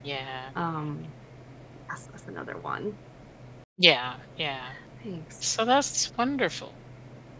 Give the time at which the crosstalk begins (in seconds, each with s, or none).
none